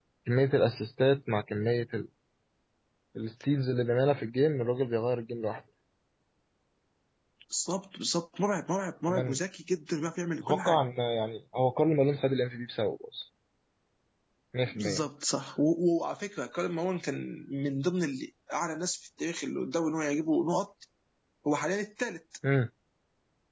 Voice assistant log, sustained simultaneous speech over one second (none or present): none